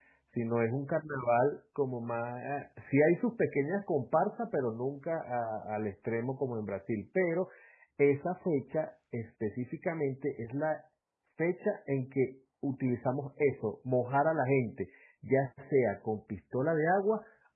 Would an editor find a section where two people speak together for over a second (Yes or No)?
No